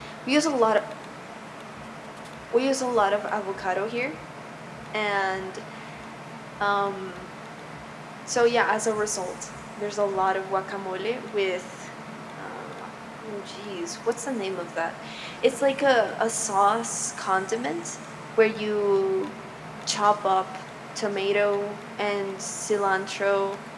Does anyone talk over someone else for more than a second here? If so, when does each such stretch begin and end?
none

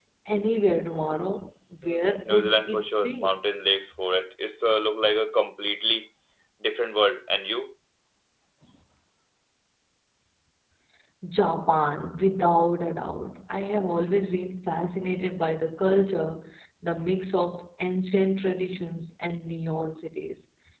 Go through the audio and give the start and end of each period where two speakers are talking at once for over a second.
1.8-3.3

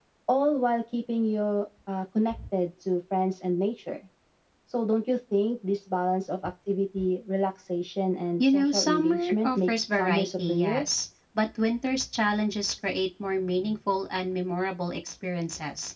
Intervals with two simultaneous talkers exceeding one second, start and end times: 8.4-10.8

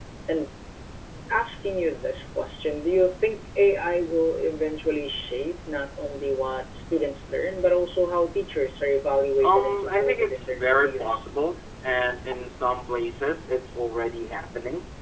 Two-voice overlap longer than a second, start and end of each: 9.4-11.3

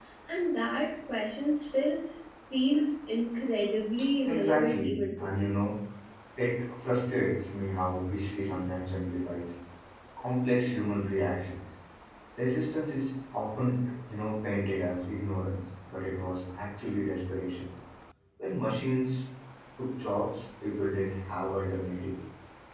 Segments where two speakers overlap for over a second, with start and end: 4.3-5.5

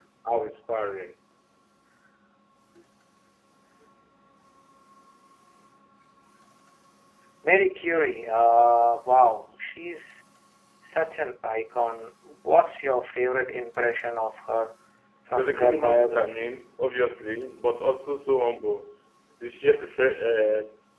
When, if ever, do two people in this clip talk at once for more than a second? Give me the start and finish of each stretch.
15.3-16.6

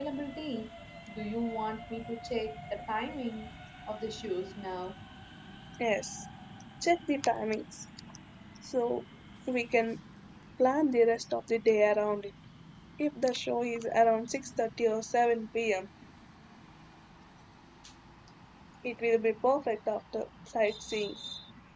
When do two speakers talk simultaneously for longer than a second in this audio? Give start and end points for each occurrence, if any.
none

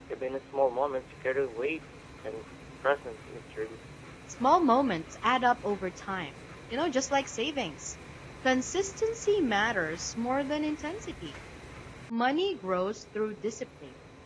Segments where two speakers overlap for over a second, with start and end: none

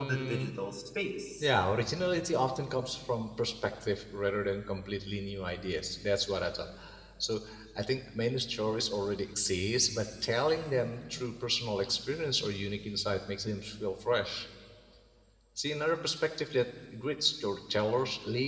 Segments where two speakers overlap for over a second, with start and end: none

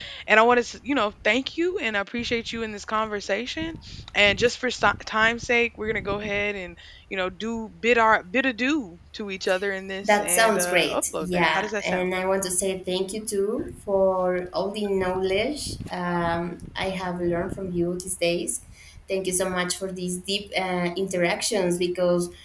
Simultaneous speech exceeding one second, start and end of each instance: 10.0-12.0

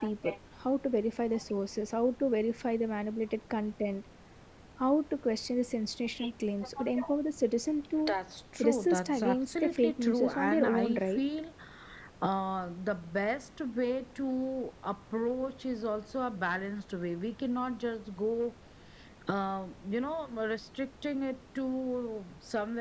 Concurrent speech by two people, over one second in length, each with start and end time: 8.6-11.2

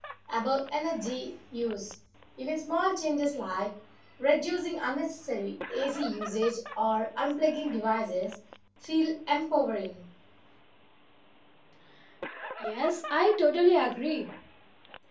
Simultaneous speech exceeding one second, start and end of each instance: none

